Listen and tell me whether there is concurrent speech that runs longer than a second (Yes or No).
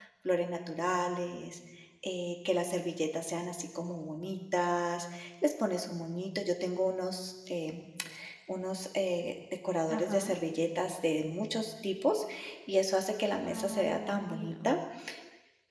Yes